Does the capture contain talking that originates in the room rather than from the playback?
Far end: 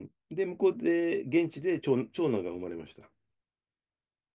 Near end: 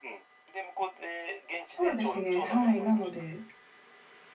Yes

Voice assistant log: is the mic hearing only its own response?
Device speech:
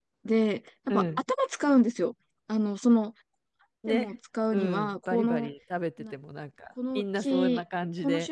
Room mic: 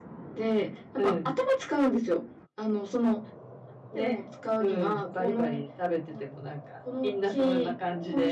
Yes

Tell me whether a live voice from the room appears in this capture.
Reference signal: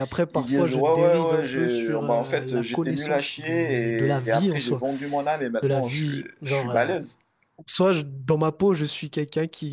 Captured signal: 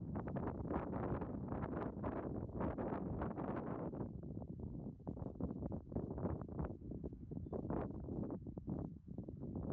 No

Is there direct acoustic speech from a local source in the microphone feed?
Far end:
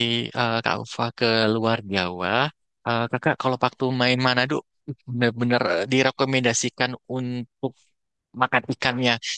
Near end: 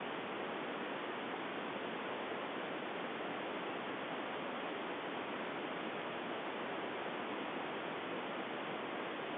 No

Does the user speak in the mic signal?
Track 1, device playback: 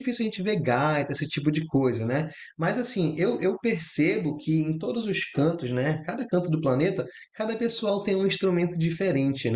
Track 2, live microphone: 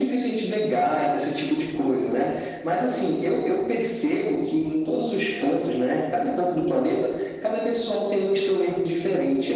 No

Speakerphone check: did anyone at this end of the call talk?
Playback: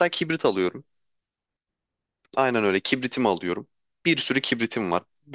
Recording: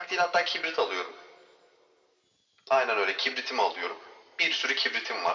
No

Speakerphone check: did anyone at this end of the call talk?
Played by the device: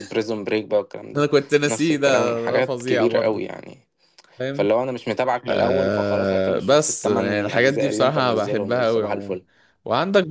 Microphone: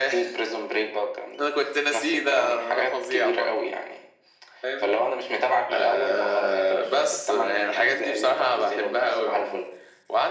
No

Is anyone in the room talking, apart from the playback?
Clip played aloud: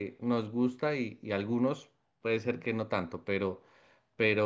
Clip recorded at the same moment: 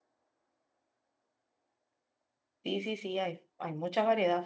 Yes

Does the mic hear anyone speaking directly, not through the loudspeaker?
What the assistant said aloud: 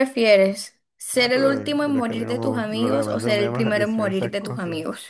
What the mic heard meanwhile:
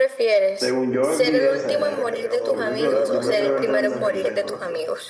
Yes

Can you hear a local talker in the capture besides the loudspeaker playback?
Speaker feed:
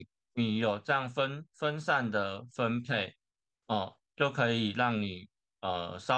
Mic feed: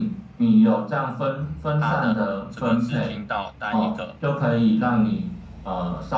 Yes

